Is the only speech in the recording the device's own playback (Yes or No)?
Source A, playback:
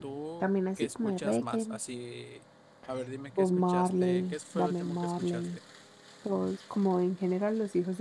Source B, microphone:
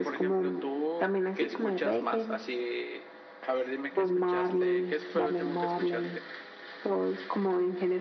Yes